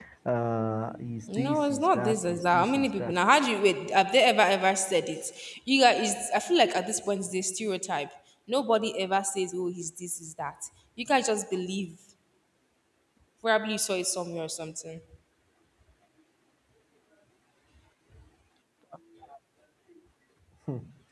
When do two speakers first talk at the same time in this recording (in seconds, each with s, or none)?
1.3 s